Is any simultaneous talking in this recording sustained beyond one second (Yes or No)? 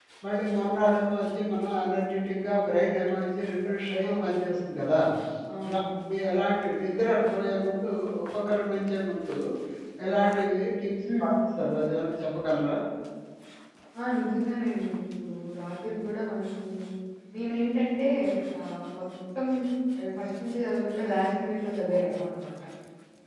No